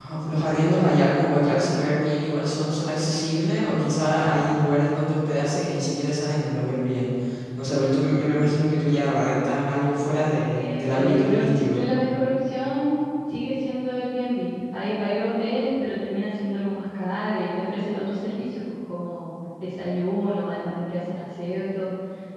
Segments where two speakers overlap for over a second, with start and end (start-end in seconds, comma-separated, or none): 10.6-11.9